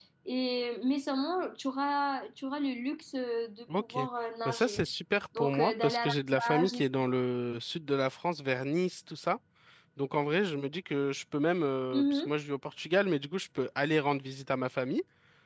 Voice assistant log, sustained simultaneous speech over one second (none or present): present